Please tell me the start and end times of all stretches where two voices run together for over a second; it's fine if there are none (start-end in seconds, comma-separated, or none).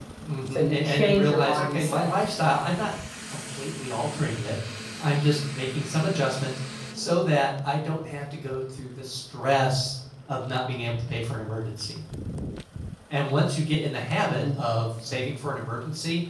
0.5-2.1